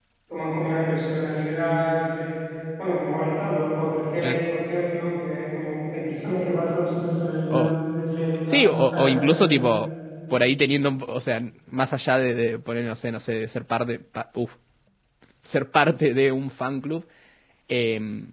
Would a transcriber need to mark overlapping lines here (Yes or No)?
Yes